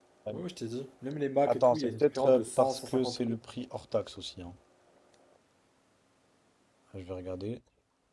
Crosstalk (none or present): present